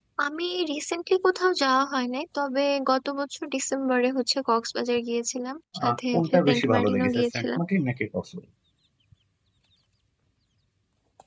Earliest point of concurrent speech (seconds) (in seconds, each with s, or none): 5.8 s